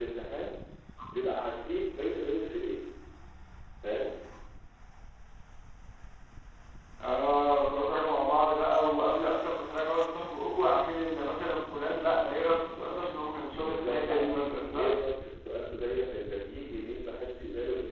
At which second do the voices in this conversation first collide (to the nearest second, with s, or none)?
14 s